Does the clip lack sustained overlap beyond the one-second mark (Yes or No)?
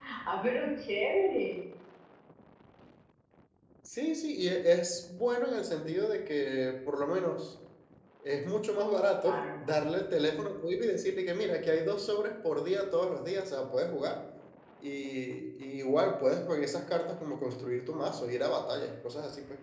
Yes